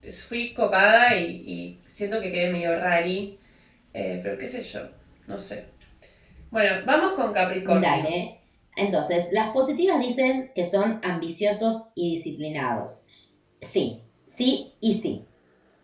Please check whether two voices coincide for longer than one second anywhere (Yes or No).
No